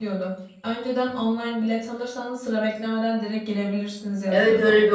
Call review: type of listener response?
taking over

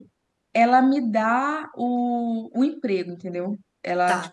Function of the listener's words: listening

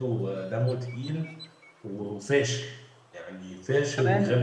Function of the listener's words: taking over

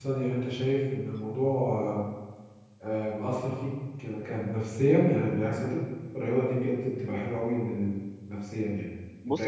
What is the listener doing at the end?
taking over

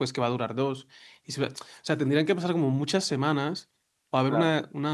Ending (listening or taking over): listening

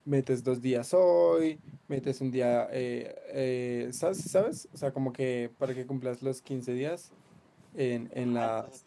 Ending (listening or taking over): taking over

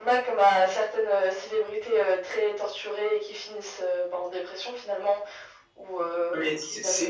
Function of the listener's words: taking over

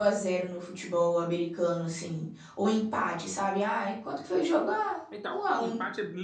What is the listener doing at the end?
taking over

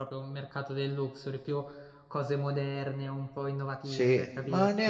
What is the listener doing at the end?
taking over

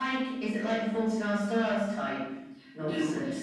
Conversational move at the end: taking over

